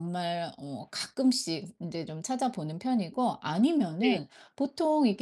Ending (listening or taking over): listening